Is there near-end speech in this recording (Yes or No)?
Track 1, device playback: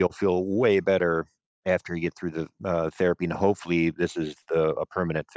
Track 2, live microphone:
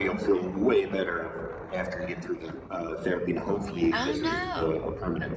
Yes